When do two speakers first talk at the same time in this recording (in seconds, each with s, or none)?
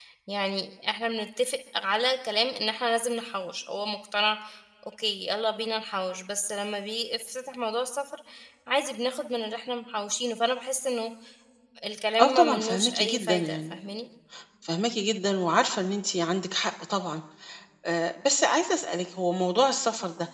12.2 s